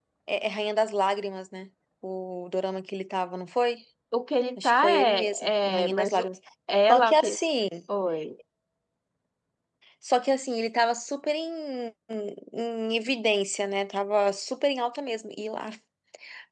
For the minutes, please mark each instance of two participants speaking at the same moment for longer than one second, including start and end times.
4.6-6.3

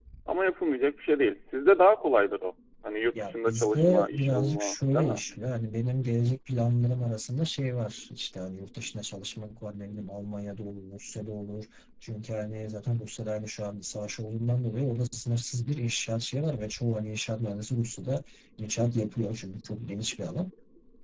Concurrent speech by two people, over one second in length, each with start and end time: 3.2-5.2

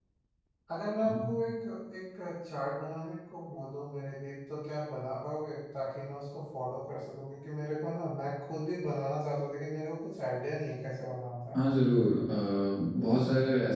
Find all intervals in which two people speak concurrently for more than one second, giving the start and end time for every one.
none

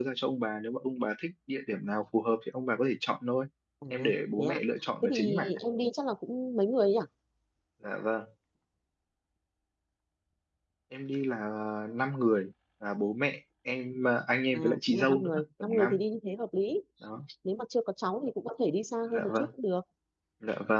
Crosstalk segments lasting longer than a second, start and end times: 14.5-16.0

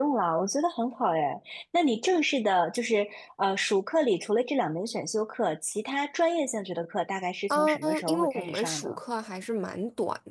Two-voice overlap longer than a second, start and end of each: 7.5-9.0

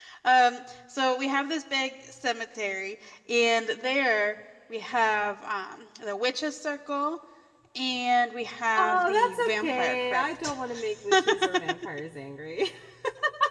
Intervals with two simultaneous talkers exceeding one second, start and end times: 8.7-10.5

